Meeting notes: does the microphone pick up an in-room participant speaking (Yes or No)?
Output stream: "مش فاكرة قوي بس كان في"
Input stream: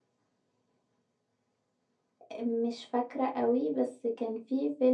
No